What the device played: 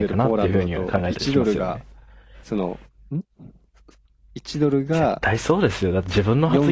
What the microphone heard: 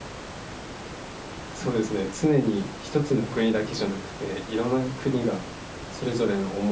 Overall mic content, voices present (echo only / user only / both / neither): user only